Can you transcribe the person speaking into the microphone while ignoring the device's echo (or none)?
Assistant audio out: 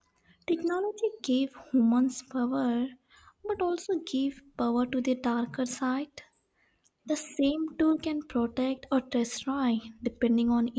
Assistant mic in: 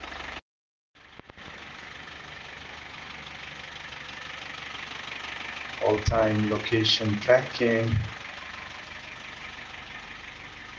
all-time location tracking.